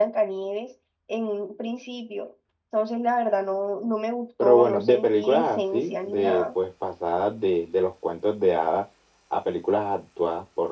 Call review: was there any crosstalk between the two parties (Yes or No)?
Yes